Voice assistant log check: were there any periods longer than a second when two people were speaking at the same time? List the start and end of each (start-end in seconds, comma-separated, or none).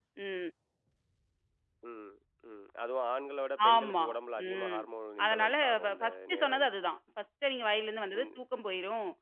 5.2-6.7